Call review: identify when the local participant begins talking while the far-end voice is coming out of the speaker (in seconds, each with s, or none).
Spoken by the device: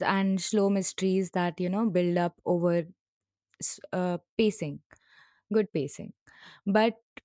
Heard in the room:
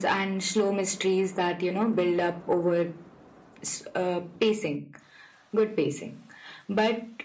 none